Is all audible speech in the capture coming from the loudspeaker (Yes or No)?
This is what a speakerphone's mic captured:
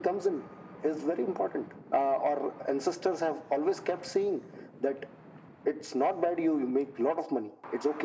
Yes